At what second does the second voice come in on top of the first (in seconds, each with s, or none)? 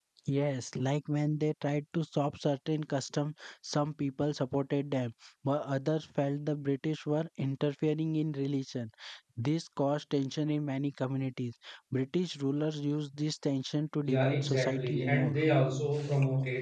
14.1 s